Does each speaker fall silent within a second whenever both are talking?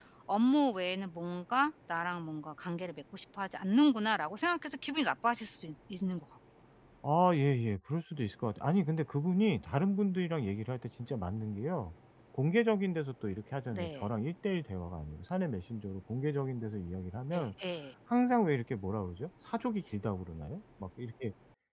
Yes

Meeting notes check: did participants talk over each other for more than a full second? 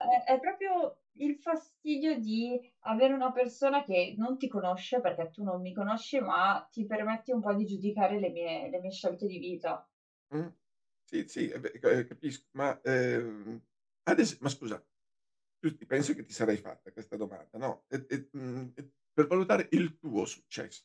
No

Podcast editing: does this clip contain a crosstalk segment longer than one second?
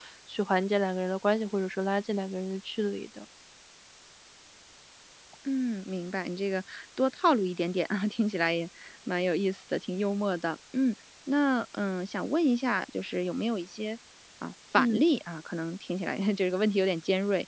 No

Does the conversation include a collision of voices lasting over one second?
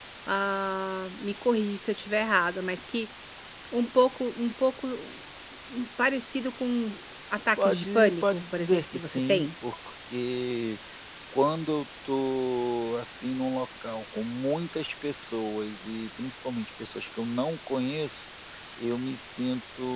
Yes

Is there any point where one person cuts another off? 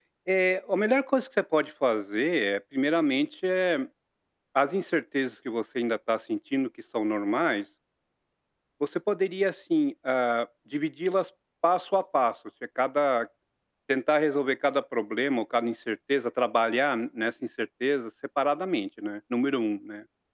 No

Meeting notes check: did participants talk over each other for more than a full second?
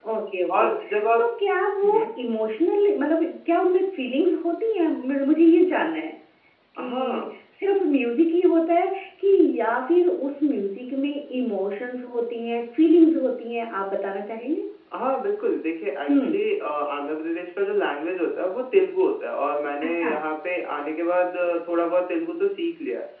No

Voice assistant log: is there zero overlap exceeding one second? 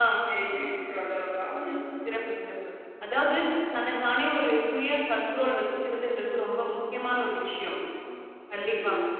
Yes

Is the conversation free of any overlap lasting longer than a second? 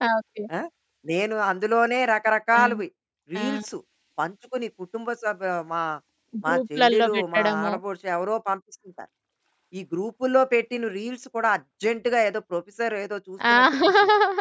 No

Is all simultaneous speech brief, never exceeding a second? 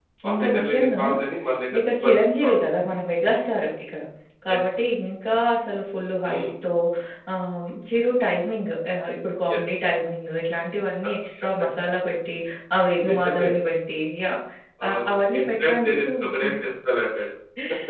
No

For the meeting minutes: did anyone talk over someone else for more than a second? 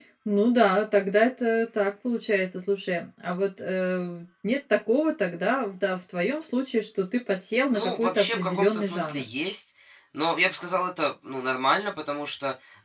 Yes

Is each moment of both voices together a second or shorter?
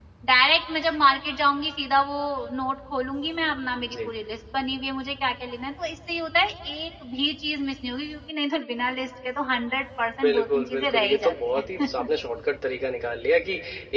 No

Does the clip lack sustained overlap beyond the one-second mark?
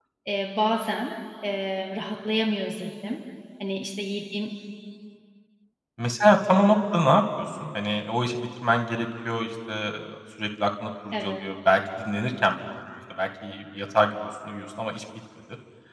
Yes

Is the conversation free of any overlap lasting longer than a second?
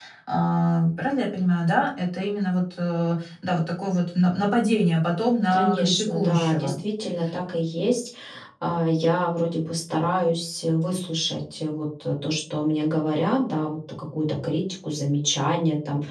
No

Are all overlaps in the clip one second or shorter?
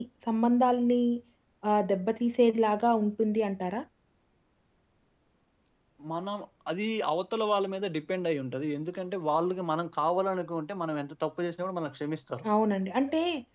Yes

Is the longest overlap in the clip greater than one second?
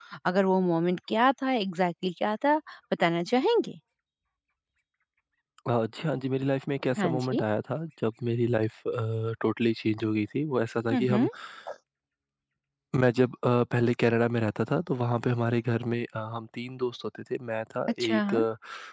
No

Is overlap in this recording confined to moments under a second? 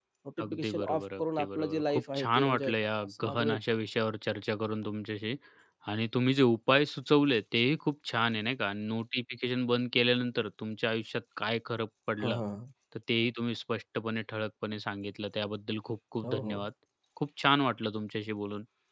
No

